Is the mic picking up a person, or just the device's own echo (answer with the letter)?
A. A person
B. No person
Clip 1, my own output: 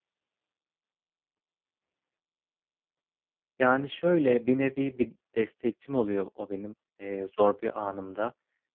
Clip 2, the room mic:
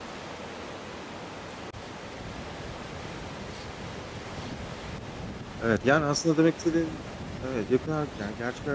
A